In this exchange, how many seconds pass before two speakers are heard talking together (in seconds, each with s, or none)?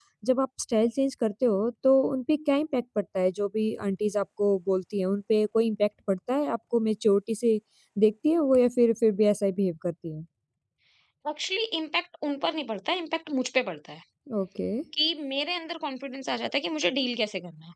none